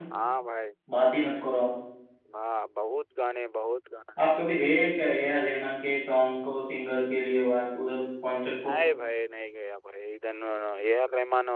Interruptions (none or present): none